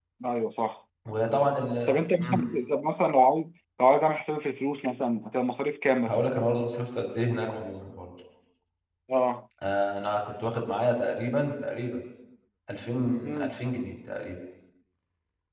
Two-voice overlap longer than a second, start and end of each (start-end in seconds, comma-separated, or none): none